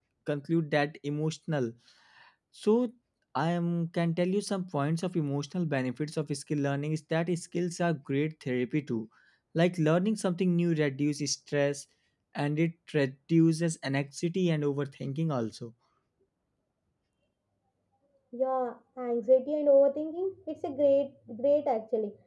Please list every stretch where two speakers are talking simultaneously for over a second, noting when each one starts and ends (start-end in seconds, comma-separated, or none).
none